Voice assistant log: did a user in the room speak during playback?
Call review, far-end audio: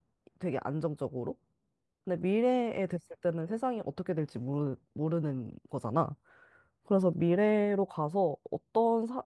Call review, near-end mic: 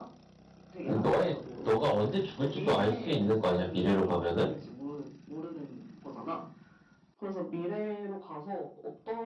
Yes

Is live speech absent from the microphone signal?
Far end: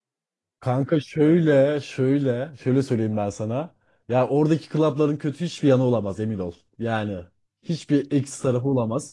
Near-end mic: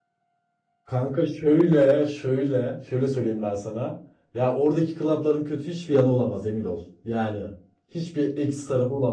Yes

